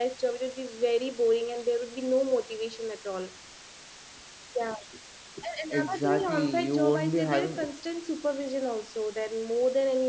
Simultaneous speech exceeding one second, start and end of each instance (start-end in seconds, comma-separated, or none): 5.7-7.6